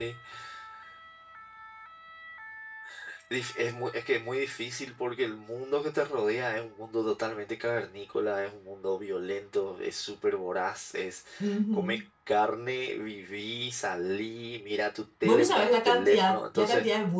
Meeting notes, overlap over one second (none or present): present